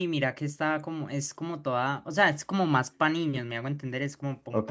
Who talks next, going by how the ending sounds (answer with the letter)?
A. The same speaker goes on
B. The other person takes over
B